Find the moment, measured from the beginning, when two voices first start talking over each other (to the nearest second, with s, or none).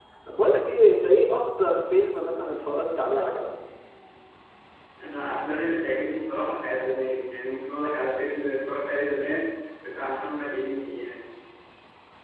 none